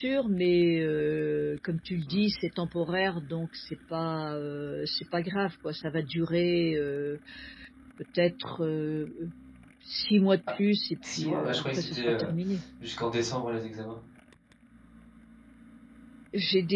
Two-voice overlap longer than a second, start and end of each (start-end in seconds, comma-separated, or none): 11.0-12.3